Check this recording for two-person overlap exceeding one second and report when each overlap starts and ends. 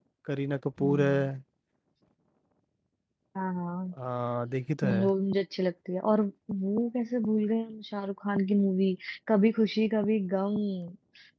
none

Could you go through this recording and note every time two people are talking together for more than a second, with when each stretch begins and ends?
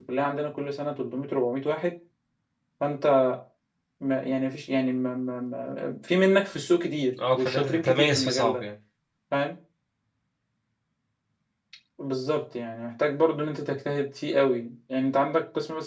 7.4-8.6

